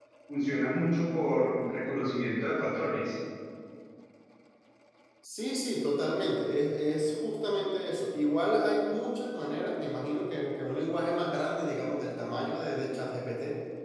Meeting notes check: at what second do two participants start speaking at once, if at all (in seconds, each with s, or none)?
none